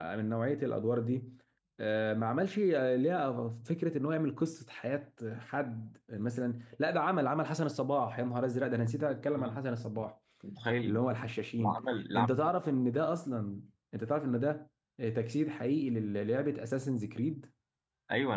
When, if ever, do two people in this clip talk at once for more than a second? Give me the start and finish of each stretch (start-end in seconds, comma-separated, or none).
none